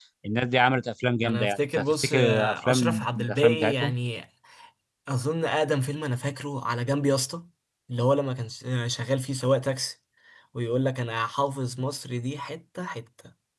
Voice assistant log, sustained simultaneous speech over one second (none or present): present